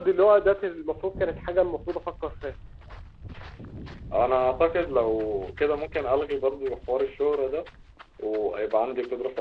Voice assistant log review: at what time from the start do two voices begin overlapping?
none

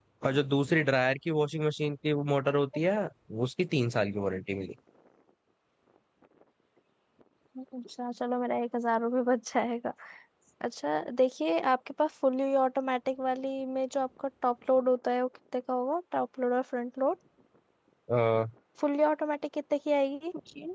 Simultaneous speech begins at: none

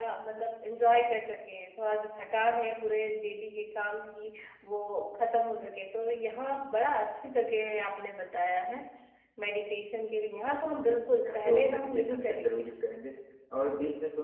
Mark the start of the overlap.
11.1 s

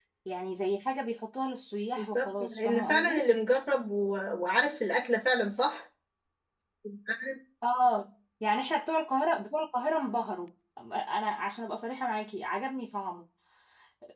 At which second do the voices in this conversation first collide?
2.0 s

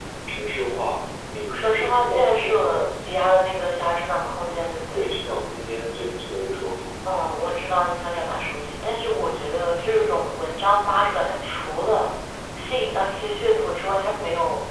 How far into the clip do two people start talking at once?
1.5 s

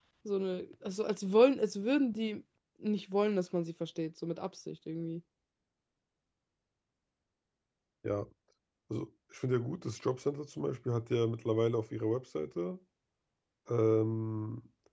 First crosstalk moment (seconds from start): none

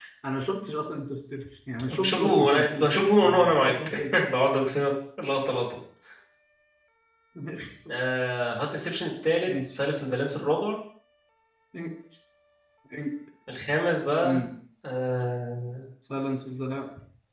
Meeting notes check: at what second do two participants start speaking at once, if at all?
1.9 s

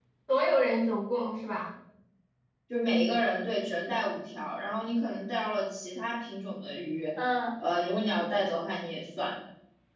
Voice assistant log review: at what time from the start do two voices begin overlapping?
none

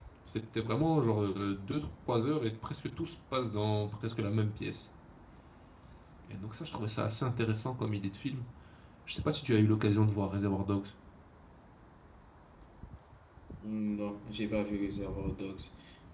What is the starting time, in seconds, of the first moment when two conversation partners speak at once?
none

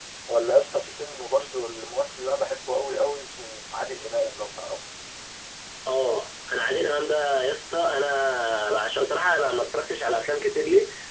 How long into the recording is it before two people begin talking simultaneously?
none

